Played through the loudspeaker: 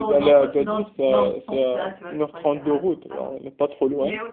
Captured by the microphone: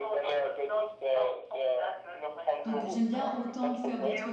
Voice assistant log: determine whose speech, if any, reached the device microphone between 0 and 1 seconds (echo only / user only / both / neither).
echo only